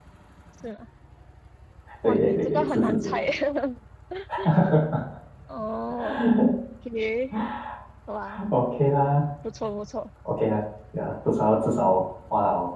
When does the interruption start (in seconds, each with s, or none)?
2.0 s